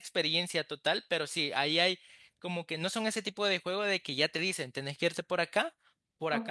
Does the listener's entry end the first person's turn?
Yes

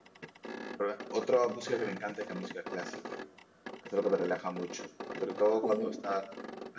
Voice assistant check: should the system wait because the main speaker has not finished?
Yes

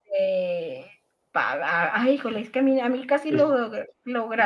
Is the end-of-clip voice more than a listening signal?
No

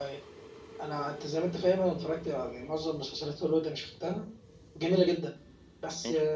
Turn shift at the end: No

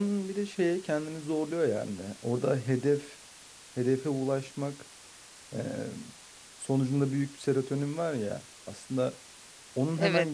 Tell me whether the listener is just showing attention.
Yes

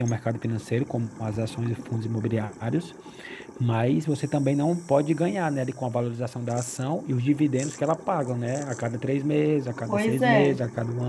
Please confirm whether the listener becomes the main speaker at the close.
No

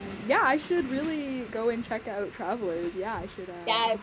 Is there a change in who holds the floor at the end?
Yes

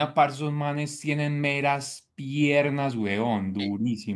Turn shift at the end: Yes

